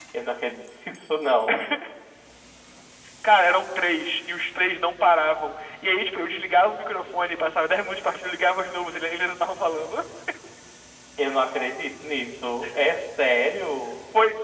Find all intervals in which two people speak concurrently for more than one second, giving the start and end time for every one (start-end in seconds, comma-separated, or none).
none